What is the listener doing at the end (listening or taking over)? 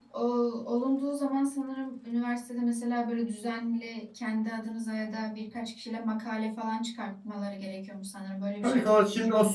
taking over